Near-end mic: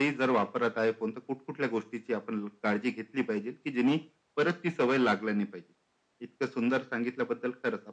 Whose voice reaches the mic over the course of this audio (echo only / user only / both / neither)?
echo only